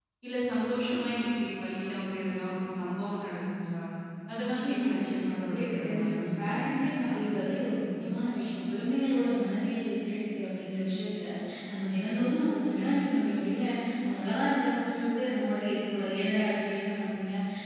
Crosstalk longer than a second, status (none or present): present